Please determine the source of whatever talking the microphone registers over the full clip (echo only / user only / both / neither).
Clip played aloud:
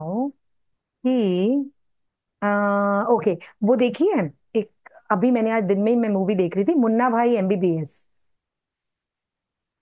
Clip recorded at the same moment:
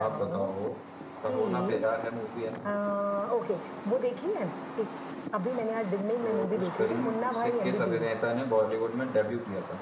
both